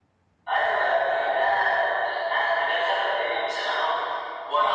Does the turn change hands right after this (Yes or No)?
No